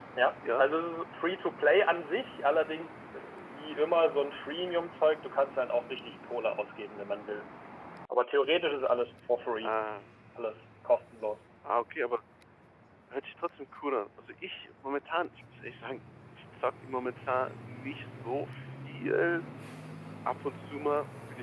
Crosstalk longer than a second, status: none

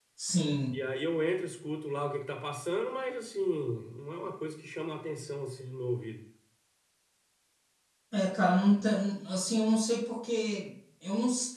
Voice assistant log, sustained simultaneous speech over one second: none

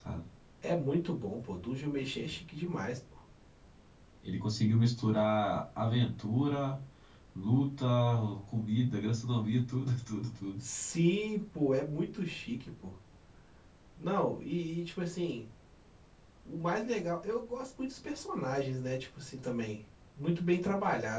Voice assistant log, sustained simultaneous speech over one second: none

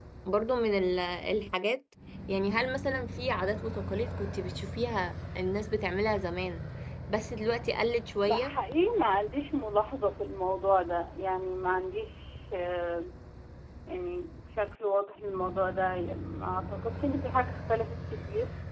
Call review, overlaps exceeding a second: none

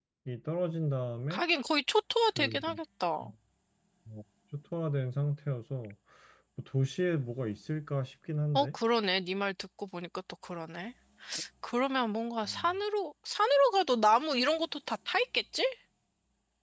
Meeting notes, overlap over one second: none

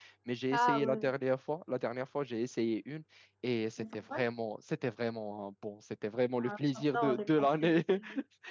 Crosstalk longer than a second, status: present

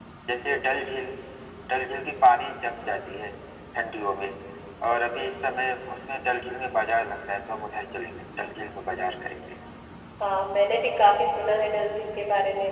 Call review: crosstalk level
none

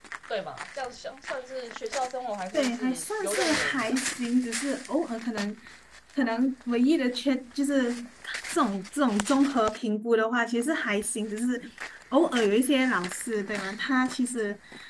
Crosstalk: present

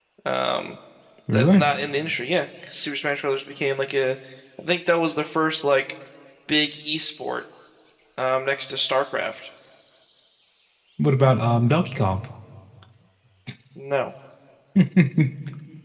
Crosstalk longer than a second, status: none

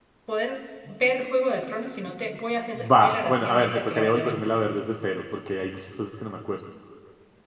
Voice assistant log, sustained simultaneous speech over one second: present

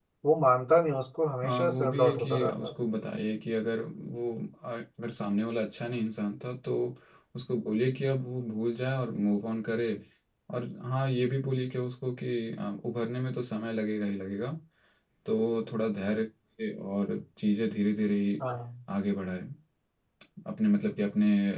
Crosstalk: present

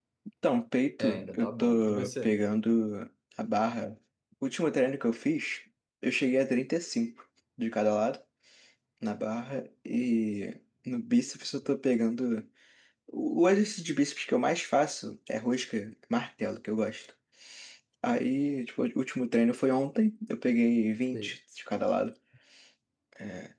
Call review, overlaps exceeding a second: present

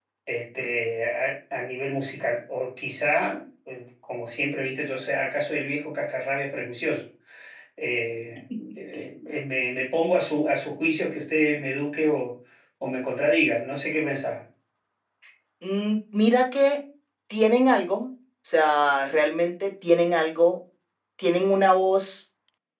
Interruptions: none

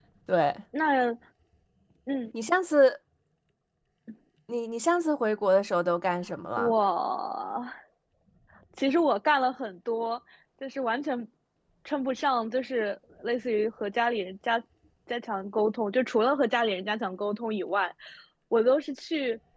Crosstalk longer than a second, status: none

